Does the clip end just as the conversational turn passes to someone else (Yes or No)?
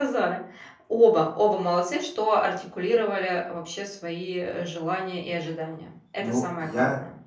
Yes